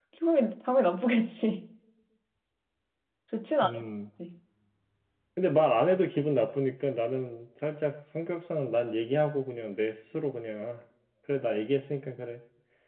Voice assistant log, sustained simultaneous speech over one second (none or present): none